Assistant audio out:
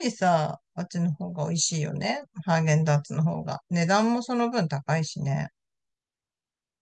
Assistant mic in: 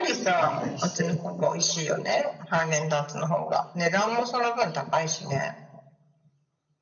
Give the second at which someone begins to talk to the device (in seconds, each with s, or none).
0.3 s